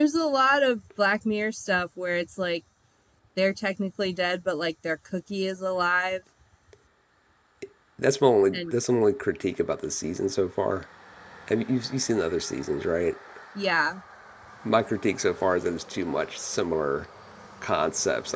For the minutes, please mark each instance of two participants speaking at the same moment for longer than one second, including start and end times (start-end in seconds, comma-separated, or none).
none